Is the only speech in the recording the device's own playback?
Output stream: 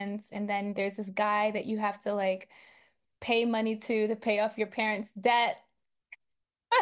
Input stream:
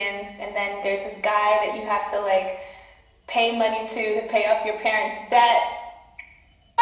Yes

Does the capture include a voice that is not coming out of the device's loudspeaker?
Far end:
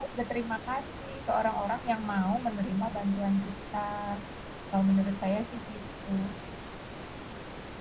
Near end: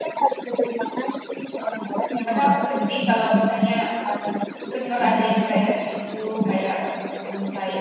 Yes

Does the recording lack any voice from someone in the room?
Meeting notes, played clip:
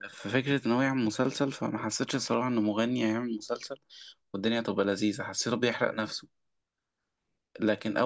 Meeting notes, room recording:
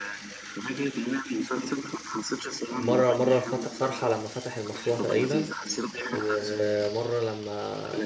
No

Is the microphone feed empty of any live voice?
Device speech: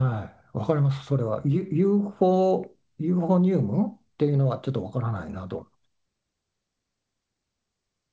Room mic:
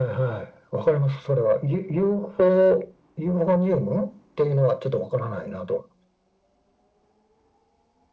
Yes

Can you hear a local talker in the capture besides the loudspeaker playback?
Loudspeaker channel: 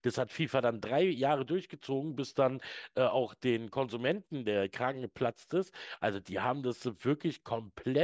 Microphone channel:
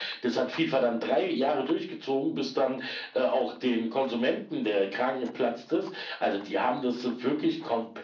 No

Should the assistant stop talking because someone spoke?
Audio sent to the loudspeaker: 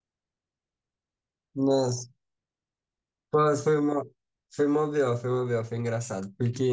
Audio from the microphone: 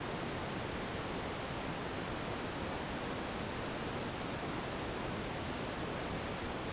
No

